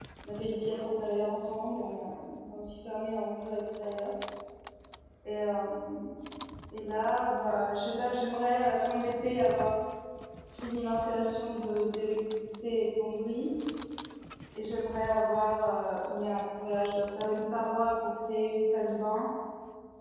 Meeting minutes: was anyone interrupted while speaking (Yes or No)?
No